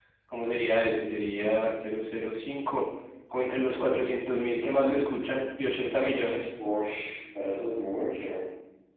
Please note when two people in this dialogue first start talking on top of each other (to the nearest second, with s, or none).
none